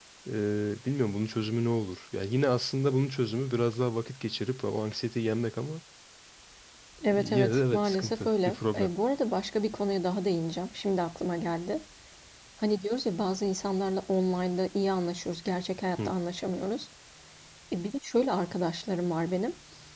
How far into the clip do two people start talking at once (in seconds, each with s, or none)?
7.1 s